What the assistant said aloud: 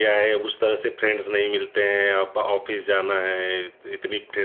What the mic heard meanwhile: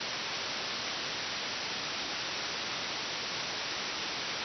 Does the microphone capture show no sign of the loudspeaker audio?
Yes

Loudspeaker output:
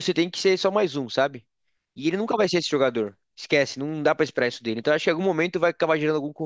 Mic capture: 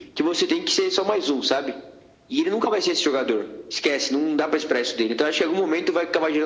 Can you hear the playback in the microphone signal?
Yes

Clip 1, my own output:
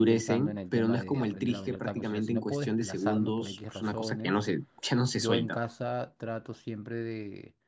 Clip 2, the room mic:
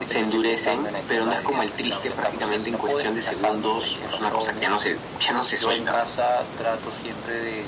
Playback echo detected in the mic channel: Yes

